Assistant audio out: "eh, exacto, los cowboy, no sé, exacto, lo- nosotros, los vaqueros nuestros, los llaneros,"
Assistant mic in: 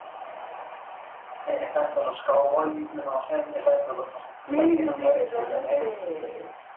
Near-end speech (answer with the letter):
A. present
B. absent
A